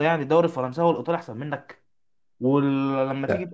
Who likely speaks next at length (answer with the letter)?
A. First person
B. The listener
A